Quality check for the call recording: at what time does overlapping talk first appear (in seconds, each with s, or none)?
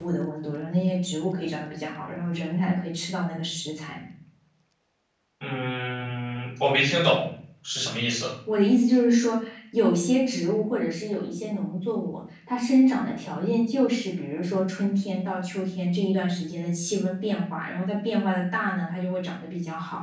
none